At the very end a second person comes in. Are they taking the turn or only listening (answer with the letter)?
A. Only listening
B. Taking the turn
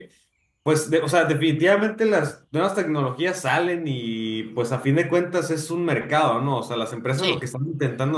A